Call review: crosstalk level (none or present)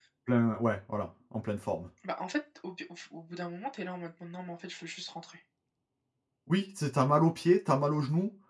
none